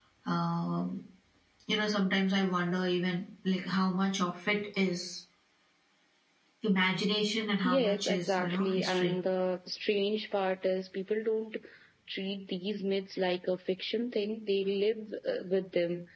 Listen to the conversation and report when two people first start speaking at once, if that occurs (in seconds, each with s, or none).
7.6 s